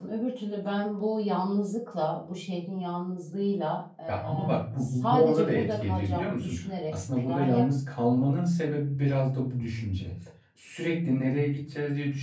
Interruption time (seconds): 4.1 s

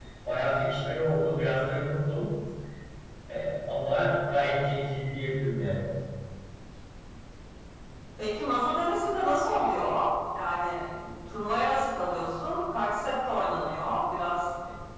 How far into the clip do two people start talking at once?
none

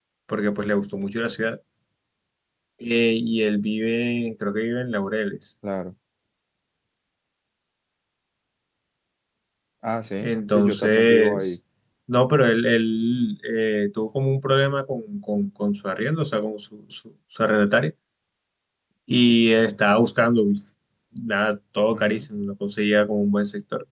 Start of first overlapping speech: 10.2 s

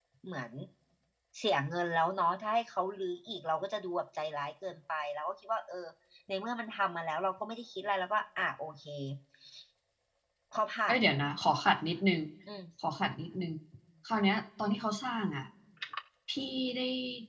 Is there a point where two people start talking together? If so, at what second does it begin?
none

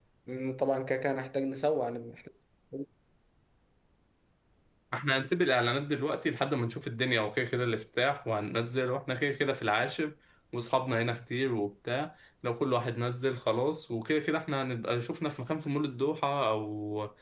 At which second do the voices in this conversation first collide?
none

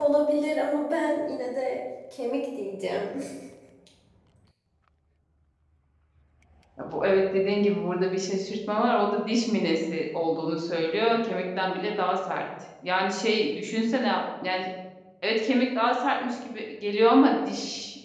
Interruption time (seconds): none

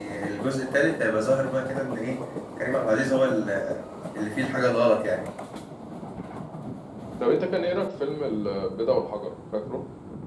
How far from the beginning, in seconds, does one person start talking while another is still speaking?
none

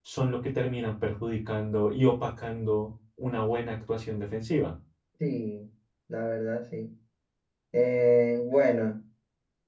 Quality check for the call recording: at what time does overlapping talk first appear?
none

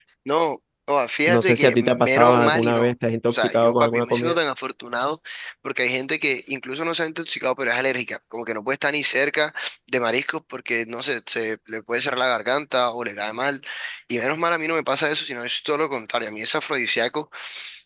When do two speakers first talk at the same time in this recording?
1.3 s

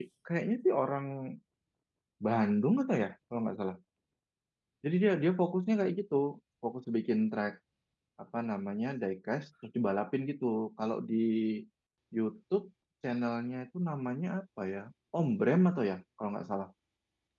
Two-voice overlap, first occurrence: none

